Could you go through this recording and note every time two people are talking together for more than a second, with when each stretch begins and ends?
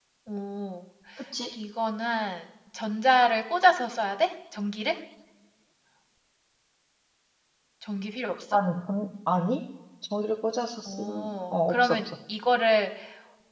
10.8-12.1

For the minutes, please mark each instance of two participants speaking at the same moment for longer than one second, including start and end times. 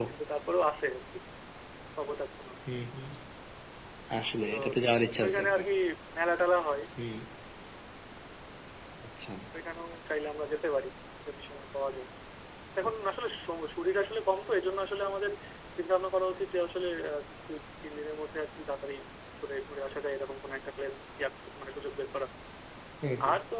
none

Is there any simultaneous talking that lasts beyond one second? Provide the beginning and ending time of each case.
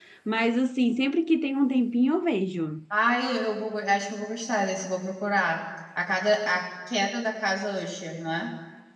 none

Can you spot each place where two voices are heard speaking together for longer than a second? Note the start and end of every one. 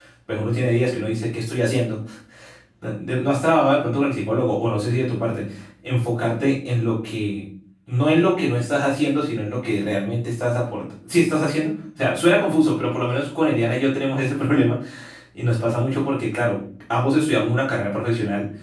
none

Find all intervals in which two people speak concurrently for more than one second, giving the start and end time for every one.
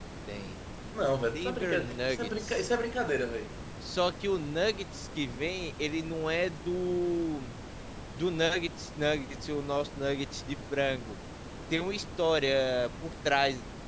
1.1-2.7

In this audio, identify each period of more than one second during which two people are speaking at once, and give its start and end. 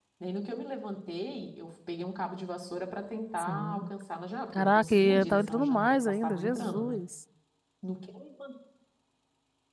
4.5-7.0

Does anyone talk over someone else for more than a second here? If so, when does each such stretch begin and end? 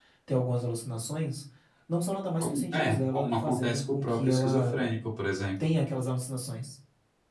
2.4-4.8

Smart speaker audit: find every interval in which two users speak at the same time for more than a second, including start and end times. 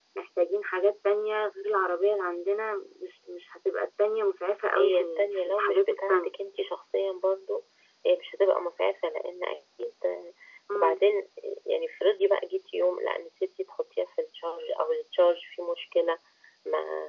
4.8-6.3

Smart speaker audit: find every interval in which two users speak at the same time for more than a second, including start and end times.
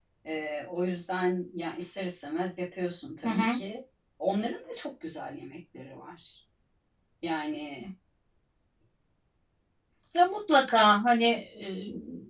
none

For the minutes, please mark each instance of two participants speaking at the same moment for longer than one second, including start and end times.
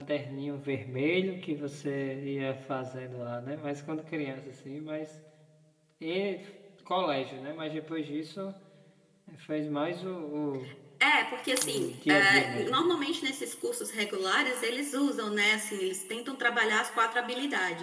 11.6-12.8

